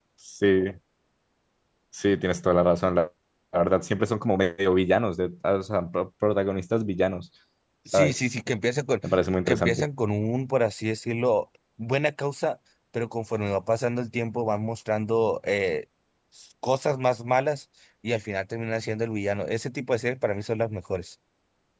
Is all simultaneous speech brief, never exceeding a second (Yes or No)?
Yes